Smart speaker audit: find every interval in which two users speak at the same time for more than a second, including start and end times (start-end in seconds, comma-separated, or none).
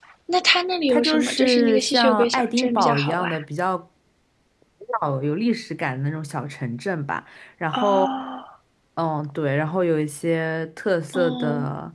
0.9-3.3